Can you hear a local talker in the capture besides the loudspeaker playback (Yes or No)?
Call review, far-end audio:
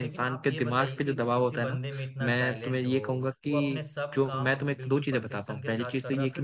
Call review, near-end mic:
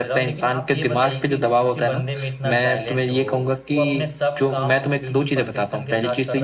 No